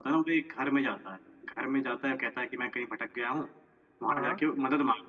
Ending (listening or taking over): listening